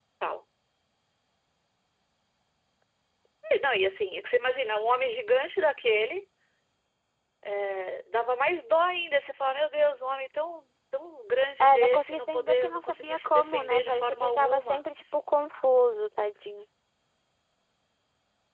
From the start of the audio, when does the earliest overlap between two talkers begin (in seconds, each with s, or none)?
11.6 s